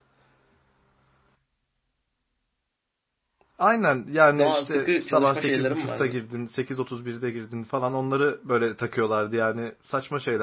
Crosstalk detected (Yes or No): Yes